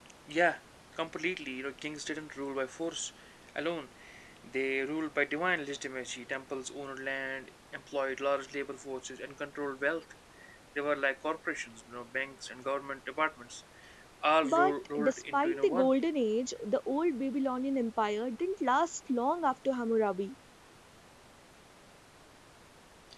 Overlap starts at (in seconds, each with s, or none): 14.4 s